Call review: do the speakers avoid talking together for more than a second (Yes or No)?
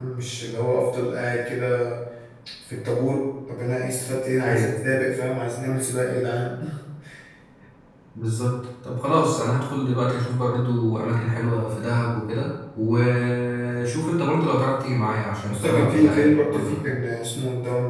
No